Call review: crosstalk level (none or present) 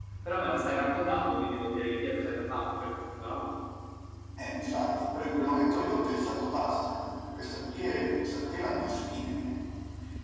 none